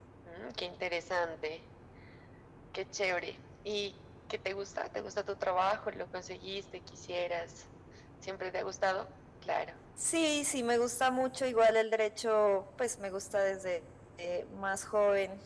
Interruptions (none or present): none